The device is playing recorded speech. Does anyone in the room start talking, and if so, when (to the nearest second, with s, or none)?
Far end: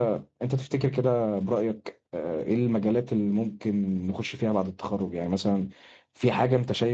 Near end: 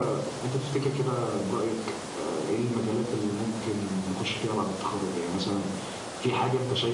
none